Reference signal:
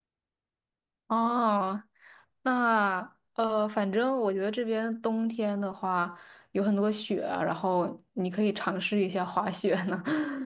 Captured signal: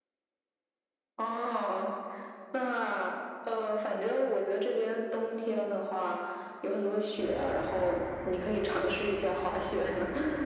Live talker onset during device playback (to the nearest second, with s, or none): none